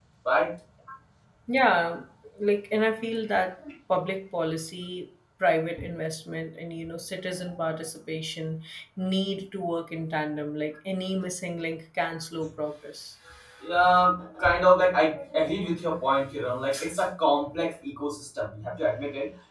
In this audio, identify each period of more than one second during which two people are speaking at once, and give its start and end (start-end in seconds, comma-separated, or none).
none